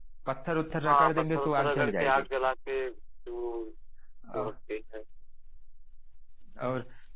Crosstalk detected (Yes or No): Yes